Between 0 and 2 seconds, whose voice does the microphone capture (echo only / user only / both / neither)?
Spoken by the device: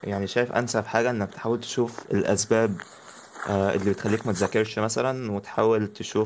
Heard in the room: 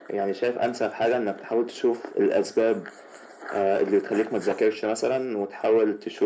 echo only